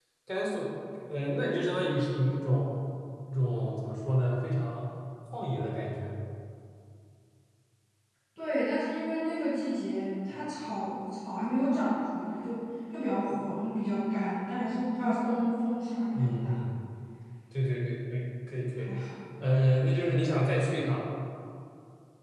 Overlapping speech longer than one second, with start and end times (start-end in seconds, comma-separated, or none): none